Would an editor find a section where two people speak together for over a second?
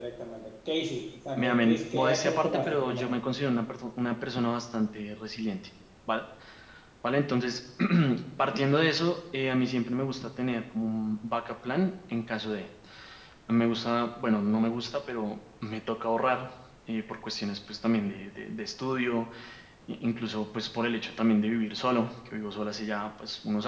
Yes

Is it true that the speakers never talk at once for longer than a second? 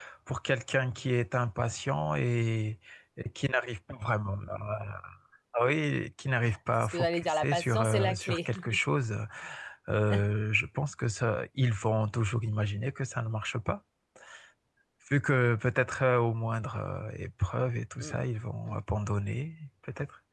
No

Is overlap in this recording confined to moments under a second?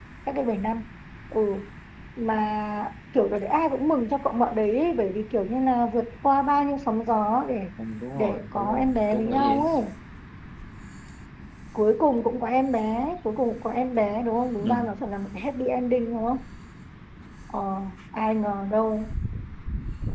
No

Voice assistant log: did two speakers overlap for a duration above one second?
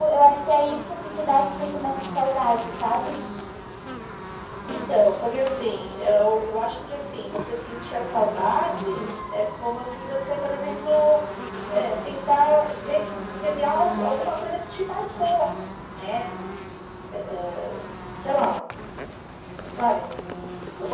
No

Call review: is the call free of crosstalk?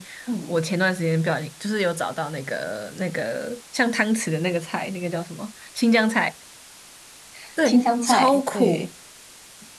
No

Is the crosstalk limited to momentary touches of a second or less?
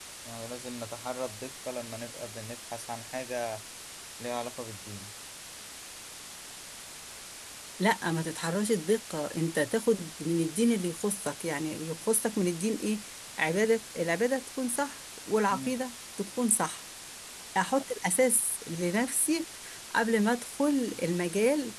Yes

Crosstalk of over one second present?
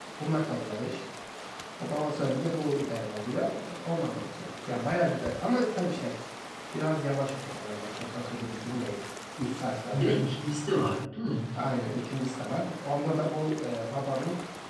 No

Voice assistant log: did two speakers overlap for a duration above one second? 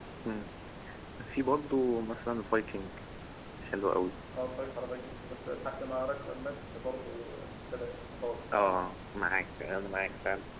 No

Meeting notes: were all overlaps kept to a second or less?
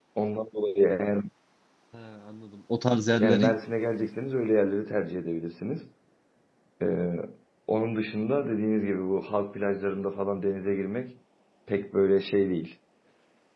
Yes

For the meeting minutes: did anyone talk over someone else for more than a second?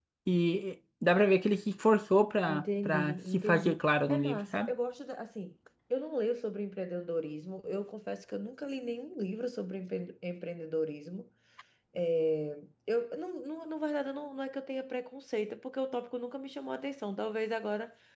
Yes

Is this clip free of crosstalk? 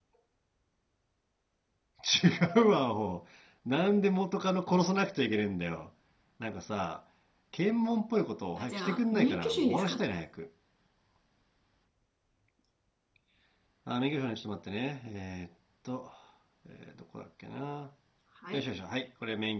No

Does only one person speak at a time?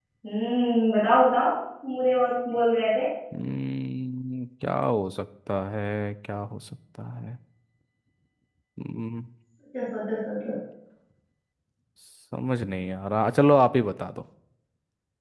Yes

